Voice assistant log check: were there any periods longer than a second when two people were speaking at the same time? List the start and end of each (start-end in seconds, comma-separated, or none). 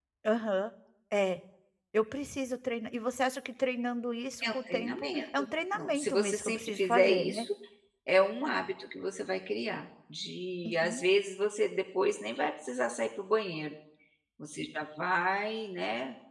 4.4-7.5